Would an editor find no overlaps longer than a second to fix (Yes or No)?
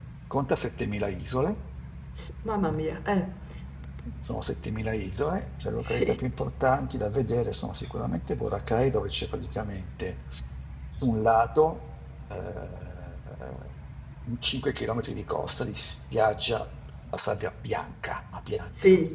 Yes